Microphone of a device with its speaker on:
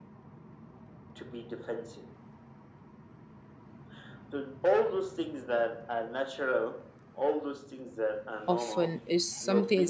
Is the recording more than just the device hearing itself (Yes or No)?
Yes